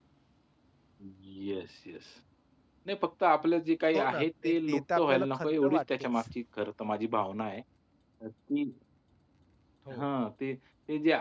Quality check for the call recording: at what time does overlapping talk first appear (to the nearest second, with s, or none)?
4 s